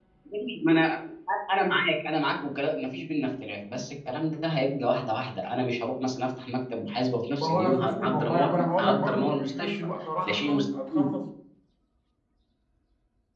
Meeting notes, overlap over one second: present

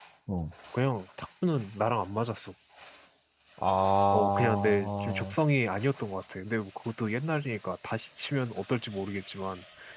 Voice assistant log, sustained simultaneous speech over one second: present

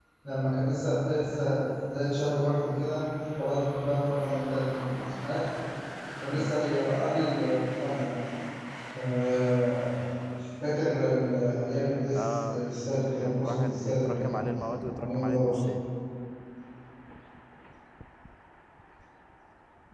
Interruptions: present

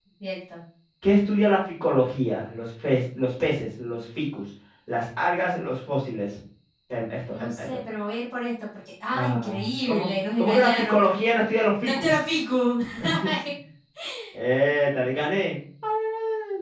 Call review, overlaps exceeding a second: present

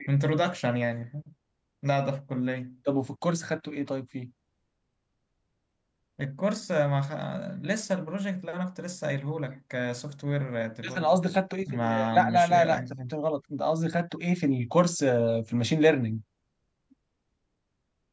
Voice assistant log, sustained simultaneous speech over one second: present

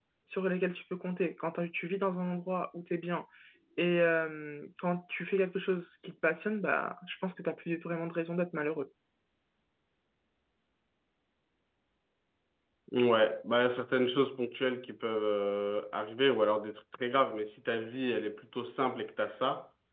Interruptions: none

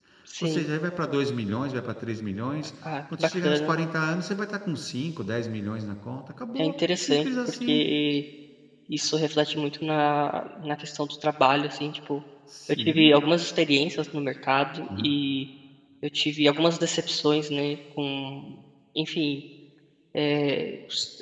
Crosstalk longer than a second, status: present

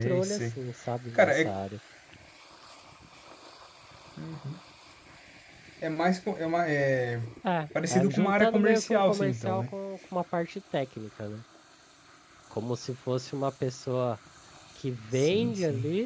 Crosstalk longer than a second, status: present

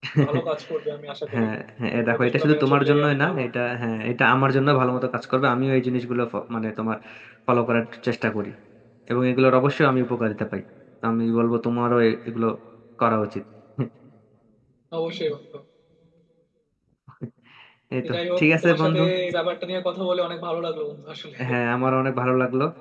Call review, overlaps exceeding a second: present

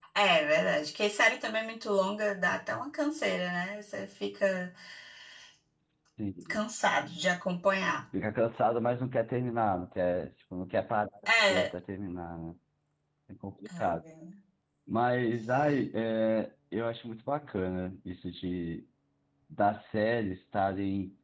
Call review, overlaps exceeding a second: none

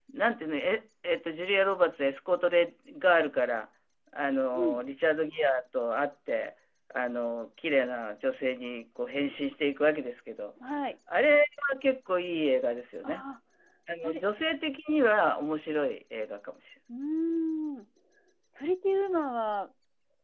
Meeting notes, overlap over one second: none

